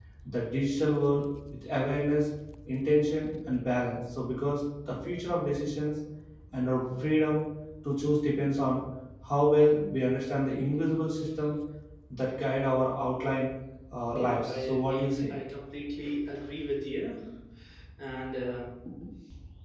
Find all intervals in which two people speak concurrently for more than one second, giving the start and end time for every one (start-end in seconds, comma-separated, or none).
14.2-15.4